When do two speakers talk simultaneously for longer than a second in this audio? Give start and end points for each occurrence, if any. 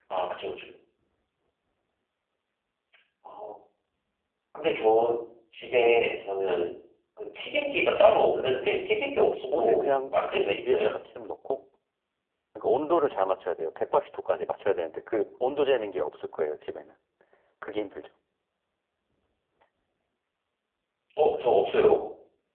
9.5-10.9

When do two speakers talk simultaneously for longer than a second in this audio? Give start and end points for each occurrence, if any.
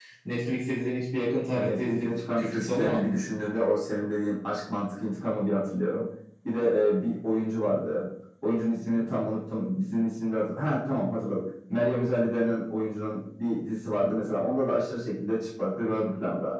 1.5-3.0

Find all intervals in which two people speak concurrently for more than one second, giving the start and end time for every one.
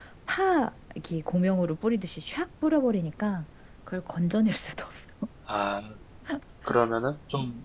none

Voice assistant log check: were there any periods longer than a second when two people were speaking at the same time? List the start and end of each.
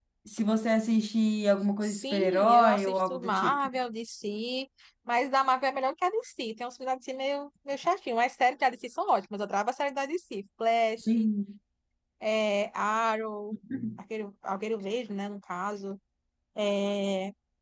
1.8-3.6

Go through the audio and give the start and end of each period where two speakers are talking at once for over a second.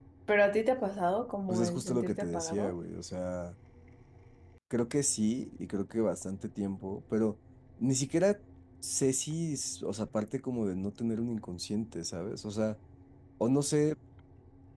1.5-2.7

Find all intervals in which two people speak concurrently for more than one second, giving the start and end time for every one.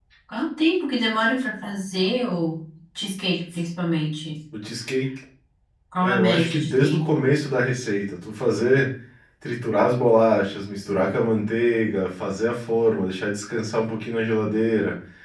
6.0-7.2

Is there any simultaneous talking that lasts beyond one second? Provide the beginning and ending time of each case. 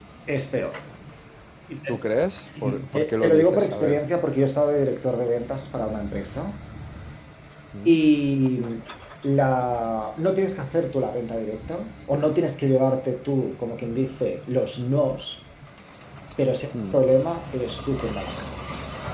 2.6-4.0

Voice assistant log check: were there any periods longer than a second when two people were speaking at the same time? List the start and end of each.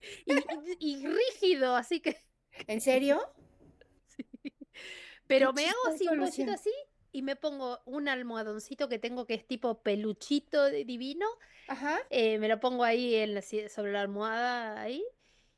5.4-6.6

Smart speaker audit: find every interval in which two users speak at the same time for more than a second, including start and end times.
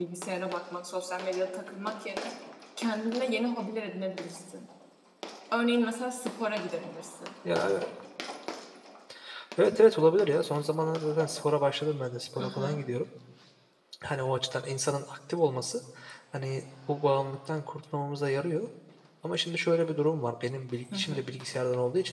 none

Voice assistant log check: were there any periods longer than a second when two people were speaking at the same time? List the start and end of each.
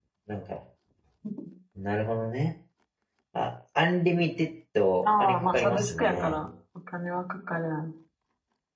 5.0-6.4

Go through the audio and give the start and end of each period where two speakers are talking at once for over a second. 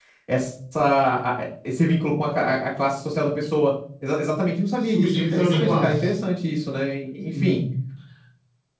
4.8-6.1

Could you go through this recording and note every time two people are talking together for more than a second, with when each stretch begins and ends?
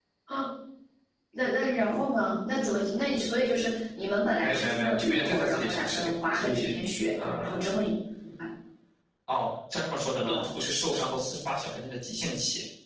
4.4-6.8

